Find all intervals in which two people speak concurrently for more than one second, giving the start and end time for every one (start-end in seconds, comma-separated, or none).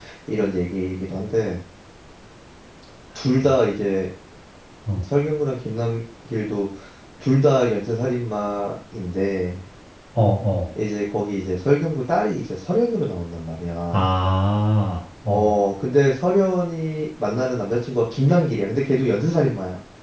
none